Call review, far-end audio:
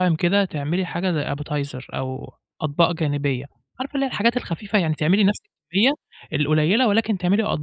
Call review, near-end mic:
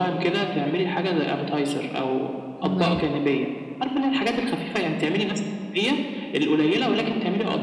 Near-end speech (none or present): present